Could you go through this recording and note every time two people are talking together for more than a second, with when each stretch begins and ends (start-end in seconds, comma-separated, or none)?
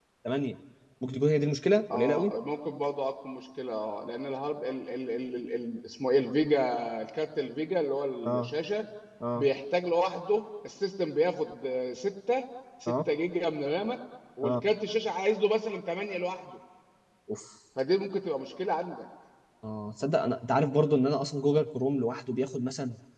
none